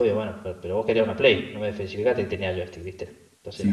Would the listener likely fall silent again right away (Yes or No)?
No